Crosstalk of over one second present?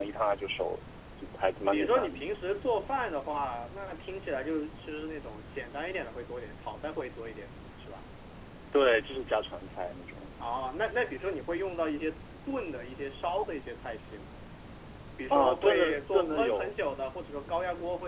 Yes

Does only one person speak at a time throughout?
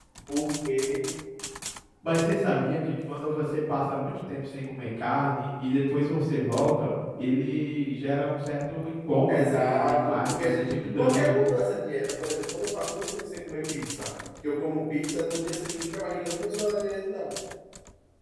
No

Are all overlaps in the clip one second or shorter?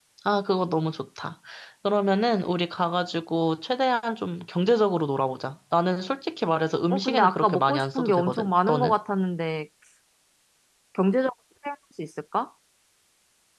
No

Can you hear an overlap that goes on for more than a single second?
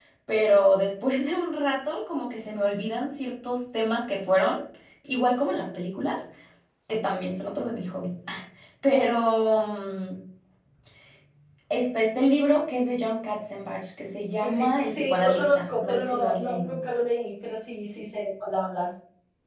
Yes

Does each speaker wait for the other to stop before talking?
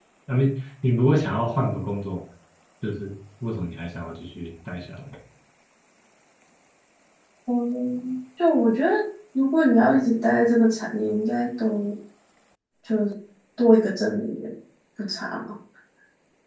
Yes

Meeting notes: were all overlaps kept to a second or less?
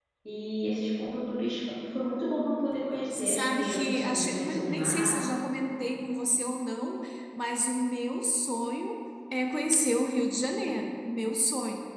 No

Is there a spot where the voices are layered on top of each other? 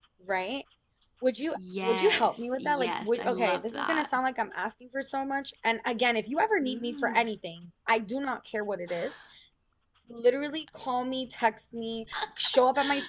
Yes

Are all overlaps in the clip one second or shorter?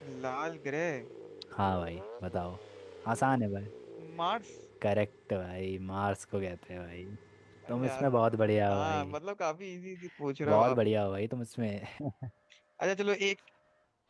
Yes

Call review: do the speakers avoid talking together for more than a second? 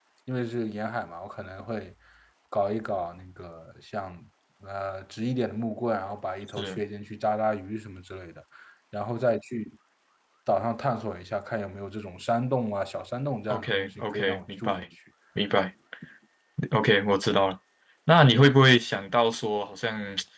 No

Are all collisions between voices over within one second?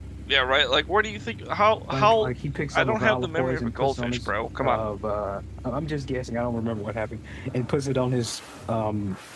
No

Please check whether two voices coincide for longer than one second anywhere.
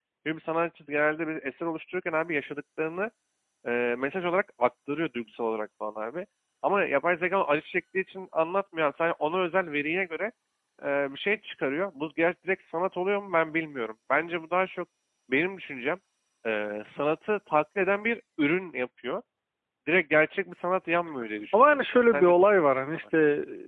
Yes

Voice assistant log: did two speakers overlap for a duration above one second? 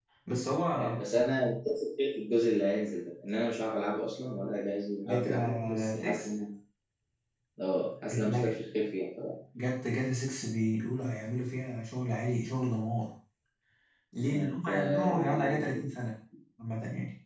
Yes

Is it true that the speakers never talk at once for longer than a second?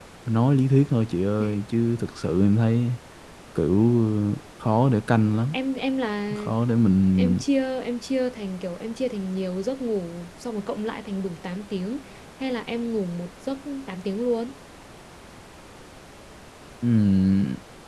Yes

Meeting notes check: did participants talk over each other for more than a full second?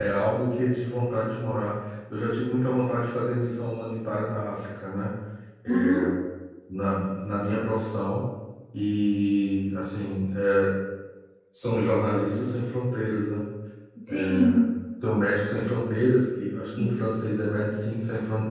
No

